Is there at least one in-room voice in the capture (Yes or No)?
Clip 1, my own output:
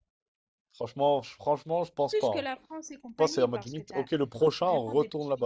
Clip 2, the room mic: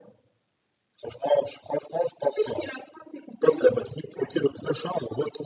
No